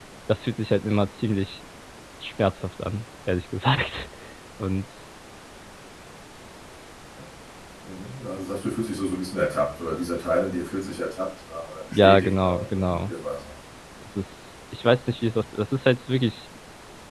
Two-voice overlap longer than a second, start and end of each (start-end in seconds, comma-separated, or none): 11.9-13.1